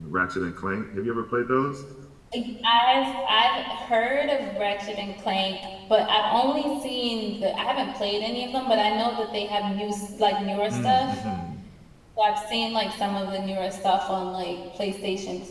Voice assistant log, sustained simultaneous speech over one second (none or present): none